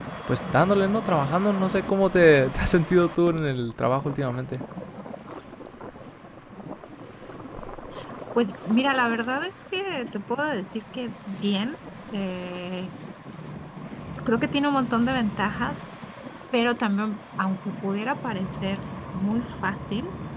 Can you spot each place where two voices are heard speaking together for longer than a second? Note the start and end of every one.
none

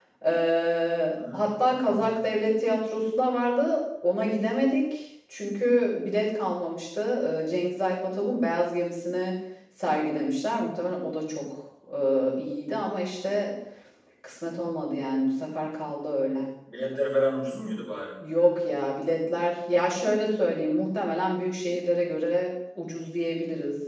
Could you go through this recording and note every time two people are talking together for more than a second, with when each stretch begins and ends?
1.1-2.3

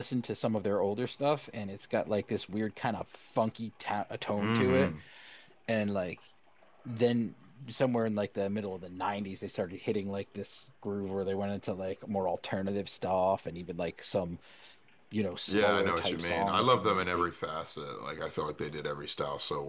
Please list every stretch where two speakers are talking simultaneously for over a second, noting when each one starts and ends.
15.5-17.3

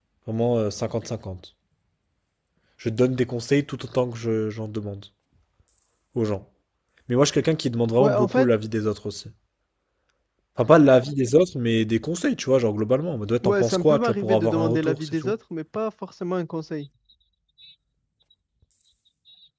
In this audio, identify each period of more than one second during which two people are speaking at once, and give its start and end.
13.4-15.3

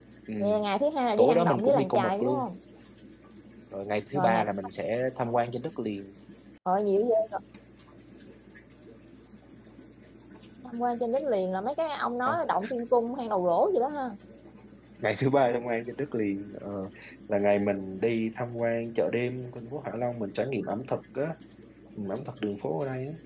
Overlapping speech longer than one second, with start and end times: 1.2-2.5

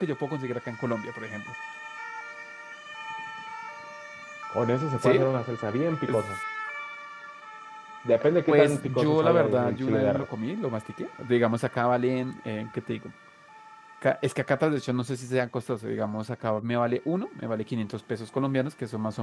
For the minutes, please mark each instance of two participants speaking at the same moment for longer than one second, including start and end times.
8.5-10.3

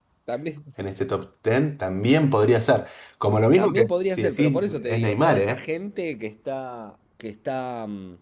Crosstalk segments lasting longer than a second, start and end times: 3.6-5.6

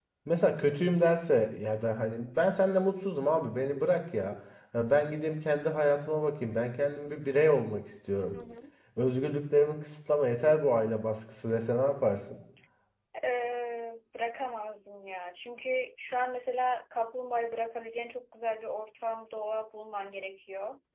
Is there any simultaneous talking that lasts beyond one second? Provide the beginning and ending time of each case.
none

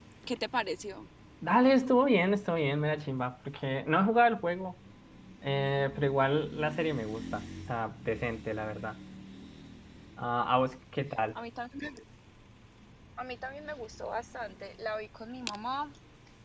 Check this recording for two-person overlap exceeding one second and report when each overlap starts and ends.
none

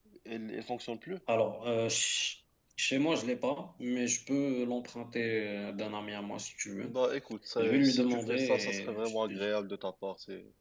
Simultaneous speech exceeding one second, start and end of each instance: 7.6-9.5

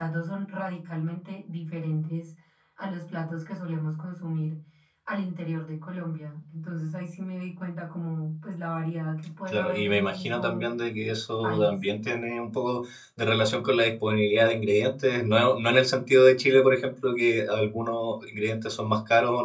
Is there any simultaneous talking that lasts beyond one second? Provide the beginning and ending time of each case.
9.5-10.7

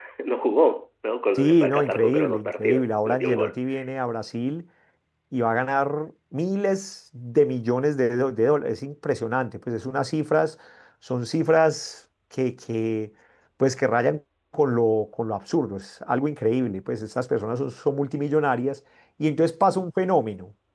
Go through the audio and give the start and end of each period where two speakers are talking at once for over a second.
1.4-3.5

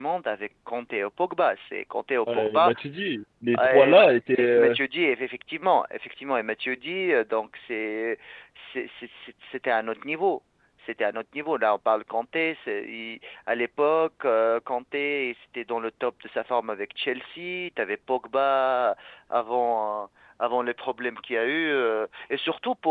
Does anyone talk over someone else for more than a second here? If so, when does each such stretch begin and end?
3.5-4.8

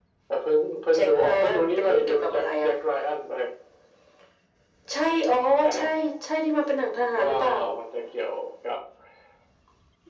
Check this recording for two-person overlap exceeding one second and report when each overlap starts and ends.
0.9-2.7

